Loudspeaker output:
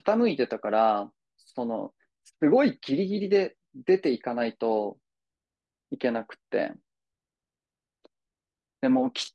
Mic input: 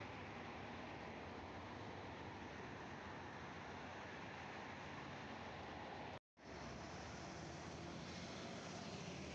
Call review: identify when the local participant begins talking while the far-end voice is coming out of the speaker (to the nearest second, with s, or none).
none